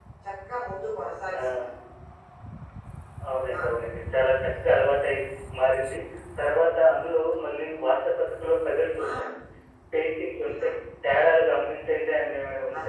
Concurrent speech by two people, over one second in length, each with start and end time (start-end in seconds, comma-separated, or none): none